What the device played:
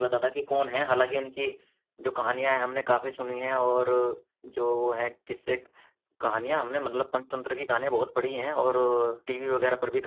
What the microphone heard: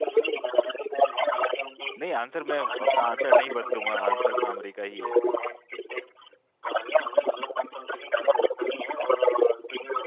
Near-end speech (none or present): present